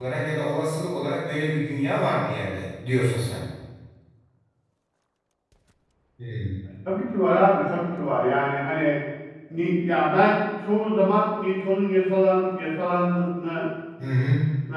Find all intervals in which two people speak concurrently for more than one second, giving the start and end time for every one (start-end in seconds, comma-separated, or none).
none